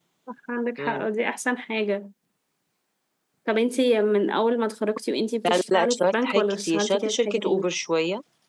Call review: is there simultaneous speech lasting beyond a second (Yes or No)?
Yes